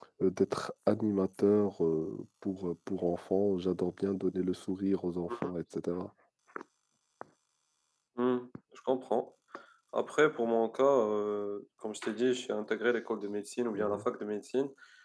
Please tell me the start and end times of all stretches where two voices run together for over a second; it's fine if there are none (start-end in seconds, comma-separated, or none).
none